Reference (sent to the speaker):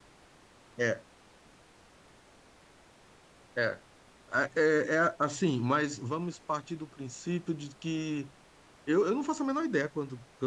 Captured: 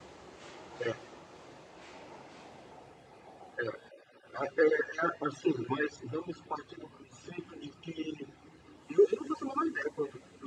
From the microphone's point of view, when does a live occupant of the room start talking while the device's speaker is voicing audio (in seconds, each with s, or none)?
none